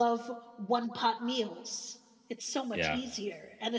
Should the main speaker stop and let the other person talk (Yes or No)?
No